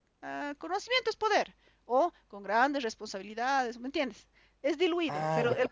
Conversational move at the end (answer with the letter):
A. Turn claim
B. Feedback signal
B